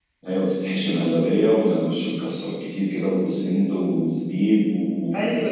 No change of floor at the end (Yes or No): No